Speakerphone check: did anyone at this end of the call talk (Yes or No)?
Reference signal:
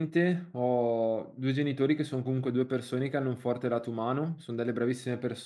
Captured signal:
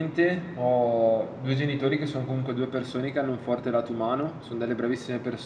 No